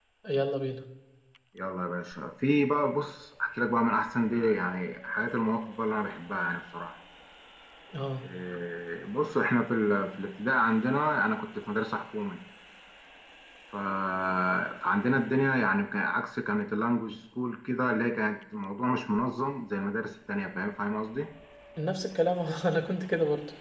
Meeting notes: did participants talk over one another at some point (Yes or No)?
No